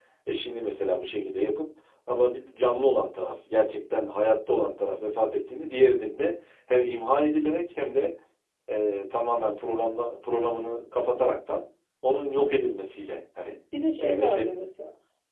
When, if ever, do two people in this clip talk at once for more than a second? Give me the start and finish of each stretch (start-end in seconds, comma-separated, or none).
none